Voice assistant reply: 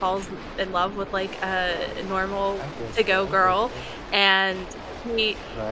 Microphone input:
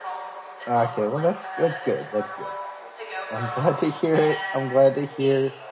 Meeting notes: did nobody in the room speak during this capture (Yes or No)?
No